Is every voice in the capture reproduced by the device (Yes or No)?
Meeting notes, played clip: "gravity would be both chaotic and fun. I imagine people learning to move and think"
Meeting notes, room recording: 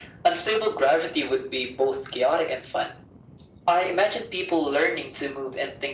Yes